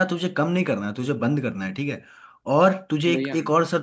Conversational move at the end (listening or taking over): listening